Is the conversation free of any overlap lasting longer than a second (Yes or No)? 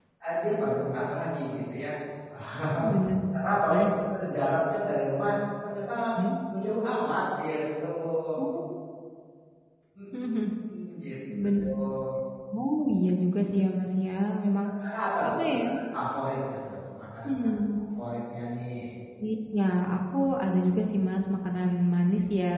Yes